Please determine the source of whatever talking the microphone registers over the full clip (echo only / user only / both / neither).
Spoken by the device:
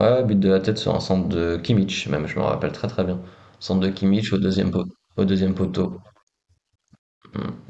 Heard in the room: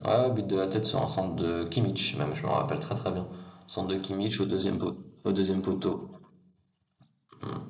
echo only